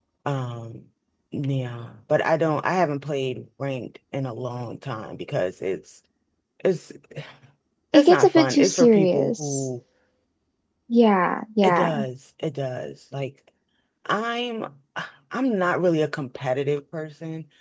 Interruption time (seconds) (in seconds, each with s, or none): 7.9 s